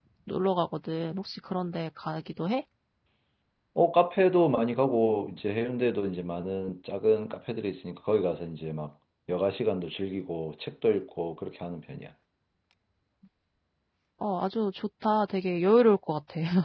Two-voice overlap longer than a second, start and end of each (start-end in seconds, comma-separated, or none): none